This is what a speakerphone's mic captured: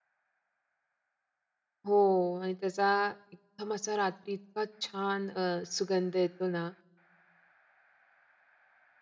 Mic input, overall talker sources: user only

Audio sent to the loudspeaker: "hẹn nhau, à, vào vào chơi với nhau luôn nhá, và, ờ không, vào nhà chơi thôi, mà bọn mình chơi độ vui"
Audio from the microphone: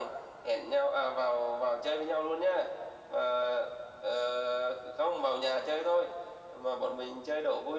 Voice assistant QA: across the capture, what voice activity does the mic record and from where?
echo only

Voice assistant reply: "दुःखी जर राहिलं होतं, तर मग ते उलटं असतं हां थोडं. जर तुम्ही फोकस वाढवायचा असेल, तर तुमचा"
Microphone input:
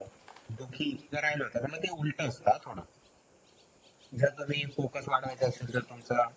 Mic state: echo only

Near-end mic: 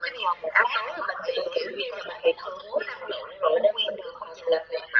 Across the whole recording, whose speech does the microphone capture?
echo only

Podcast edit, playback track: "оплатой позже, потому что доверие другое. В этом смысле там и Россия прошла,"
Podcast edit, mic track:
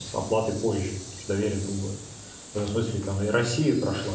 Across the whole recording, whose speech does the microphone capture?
echo only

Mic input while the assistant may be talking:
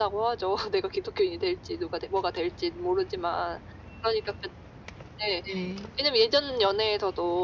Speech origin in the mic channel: both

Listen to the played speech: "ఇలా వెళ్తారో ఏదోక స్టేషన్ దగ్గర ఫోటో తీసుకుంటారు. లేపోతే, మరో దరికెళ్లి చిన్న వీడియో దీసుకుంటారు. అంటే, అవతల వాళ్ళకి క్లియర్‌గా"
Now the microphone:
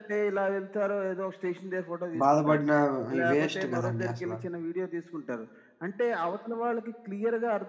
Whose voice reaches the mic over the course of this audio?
both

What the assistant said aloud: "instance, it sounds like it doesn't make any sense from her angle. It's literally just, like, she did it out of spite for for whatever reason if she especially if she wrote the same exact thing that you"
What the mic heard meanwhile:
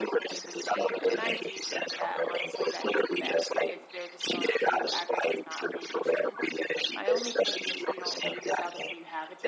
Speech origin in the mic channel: both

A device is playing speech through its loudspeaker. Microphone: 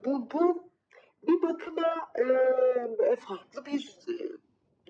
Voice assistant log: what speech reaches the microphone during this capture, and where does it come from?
echo only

